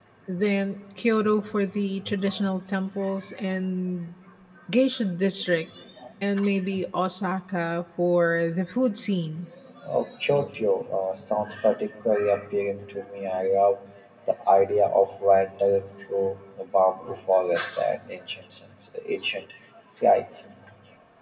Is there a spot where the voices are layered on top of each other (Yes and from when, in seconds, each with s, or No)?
No